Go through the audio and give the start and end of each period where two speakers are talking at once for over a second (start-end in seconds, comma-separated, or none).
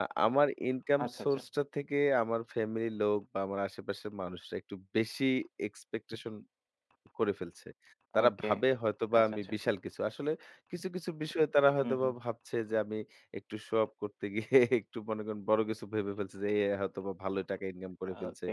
none